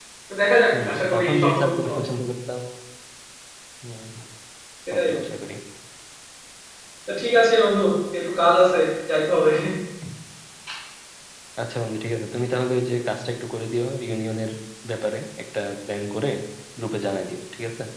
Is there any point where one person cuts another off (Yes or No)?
Yes